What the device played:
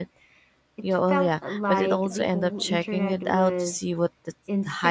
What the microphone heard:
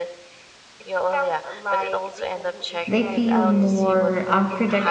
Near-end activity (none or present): present